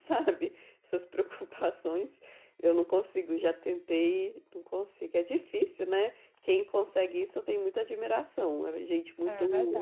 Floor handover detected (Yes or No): Yes